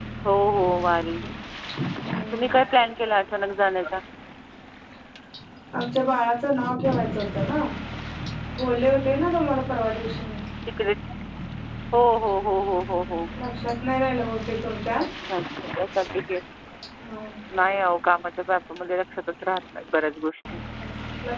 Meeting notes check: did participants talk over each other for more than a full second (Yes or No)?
No